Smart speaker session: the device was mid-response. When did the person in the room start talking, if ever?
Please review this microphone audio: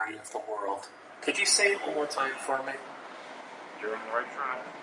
none

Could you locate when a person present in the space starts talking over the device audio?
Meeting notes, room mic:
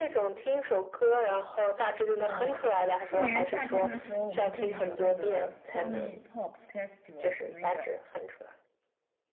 2.3 s

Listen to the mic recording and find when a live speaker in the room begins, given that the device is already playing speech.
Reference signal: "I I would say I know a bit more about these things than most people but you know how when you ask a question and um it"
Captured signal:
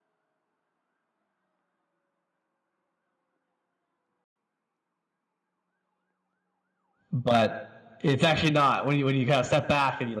7.1 s

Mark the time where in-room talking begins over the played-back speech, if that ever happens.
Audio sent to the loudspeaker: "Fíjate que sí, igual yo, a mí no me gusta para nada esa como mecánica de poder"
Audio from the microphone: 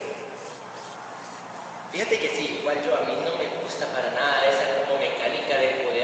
none

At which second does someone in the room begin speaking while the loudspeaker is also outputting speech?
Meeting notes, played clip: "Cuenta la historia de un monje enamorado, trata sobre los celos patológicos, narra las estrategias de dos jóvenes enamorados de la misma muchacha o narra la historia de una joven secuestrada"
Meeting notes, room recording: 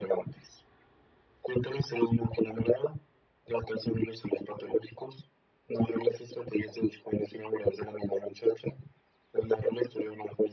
none

